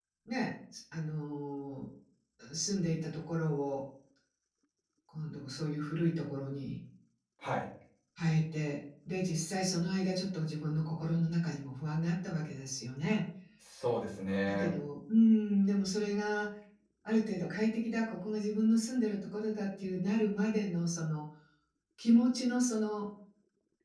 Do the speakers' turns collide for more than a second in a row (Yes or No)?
No